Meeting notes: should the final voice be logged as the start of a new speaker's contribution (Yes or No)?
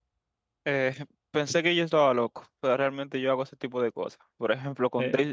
No